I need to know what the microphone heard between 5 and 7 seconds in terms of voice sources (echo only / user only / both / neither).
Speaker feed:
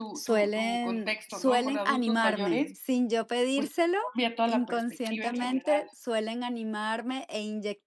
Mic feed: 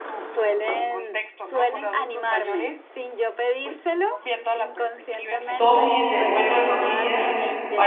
both